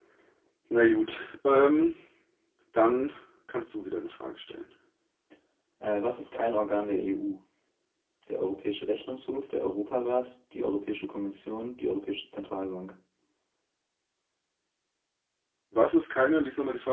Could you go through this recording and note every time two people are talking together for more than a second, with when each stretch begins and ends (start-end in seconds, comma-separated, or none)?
none